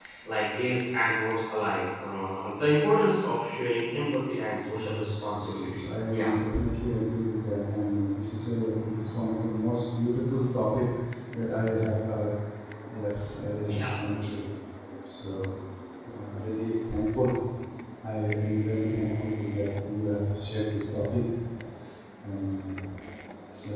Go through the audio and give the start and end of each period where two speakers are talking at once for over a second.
4.7-6.3

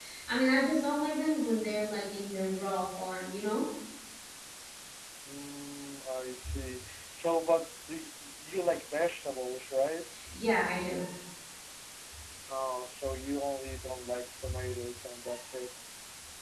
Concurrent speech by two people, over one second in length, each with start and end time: none

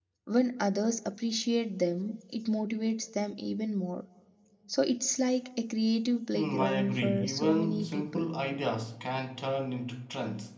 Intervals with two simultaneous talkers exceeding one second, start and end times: 6.3-8.2

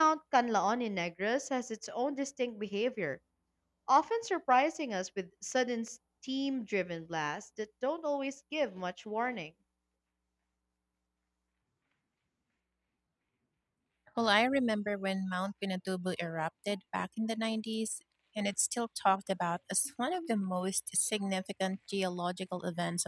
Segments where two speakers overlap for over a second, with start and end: none

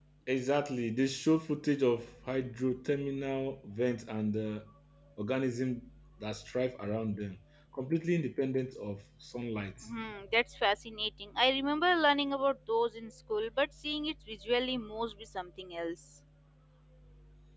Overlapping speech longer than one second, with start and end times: none

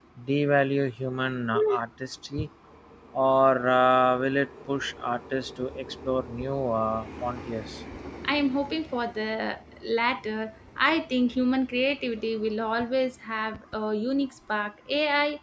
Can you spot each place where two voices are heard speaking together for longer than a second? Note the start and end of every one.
none

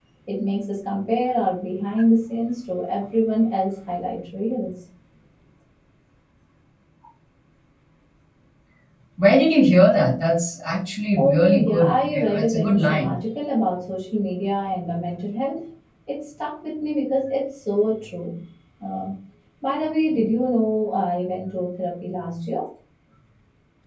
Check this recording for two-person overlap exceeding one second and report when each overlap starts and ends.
11.2-13.2

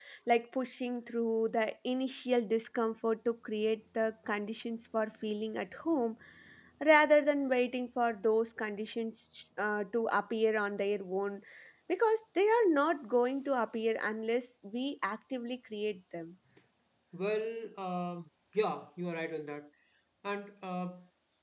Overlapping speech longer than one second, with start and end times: none

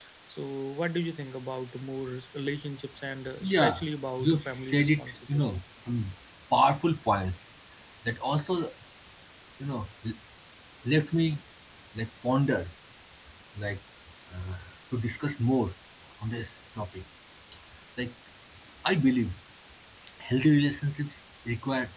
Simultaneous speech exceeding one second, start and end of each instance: 4.2-5.6

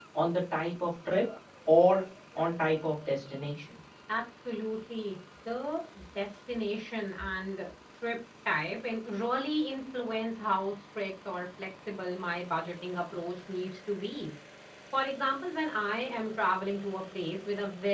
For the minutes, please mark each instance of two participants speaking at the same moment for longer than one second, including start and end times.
none

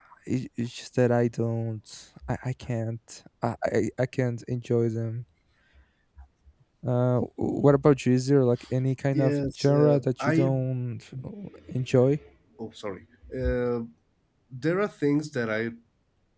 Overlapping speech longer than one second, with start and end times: 9.1-10.5

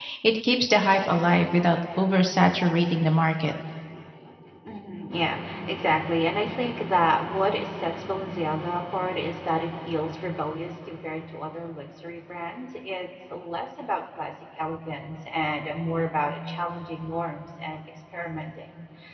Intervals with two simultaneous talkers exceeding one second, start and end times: none

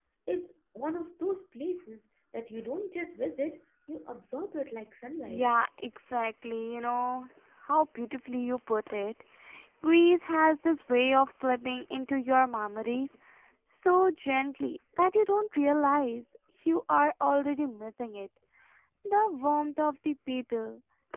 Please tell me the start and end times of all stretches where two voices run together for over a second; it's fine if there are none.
none

